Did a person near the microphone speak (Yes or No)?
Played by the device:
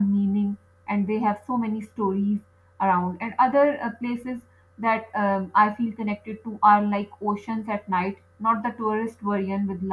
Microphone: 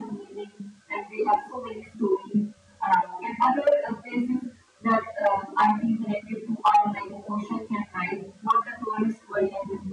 No